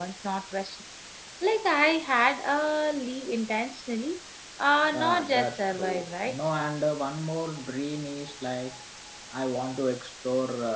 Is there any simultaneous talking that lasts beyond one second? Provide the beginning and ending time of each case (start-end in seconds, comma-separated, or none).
4.9-6.5